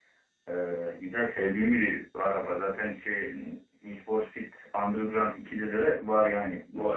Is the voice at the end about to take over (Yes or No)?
No